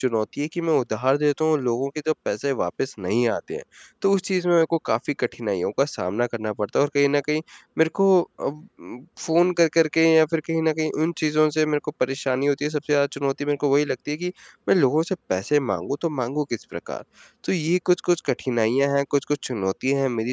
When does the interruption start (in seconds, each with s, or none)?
none